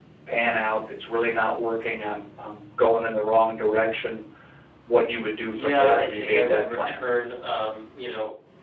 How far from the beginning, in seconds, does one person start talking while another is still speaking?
5.5 s

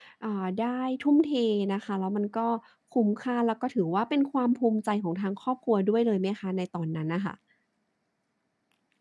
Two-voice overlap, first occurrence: none

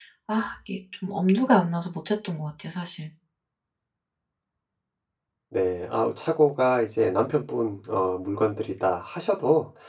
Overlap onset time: none

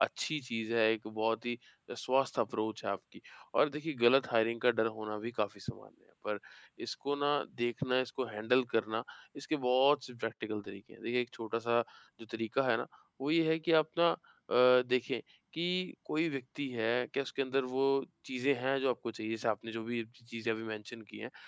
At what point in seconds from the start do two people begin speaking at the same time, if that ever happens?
none

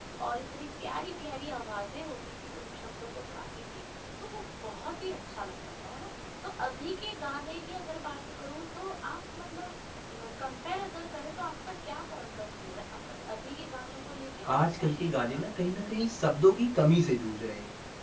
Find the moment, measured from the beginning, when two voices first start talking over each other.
14.4 s

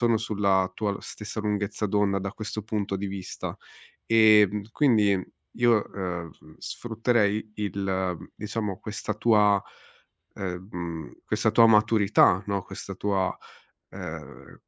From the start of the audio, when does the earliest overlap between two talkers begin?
none

